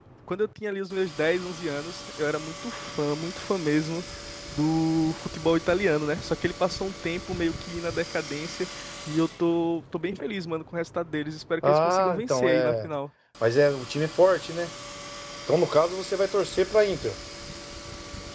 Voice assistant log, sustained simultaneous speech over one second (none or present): present